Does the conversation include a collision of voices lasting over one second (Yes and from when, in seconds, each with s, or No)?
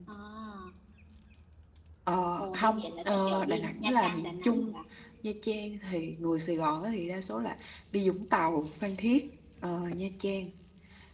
Yes, from 2.4 s